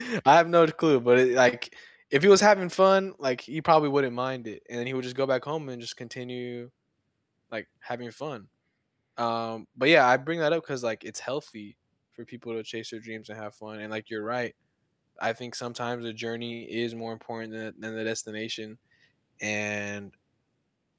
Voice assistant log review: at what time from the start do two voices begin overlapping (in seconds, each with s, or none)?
none